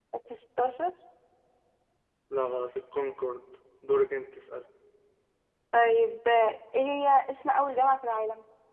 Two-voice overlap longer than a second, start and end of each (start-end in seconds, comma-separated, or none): none